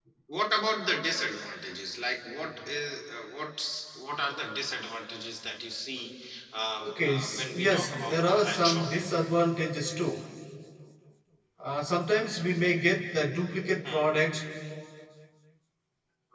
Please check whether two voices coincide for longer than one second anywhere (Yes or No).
Yes